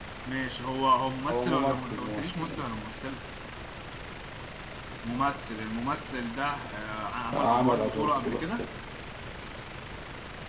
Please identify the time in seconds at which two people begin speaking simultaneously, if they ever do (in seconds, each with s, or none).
1.3 s